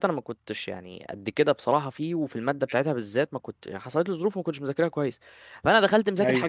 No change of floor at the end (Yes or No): Yes